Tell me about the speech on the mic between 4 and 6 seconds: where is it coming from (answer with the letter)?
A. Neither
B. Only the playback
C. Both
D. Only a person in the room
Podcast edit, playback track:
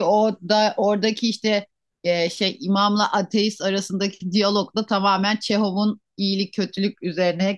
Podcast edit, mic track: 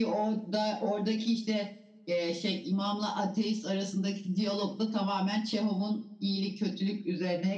B